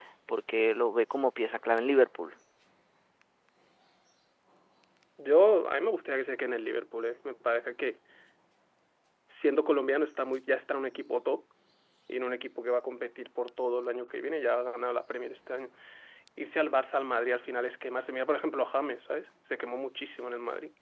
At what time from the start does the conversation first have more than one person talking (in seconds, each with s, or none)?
none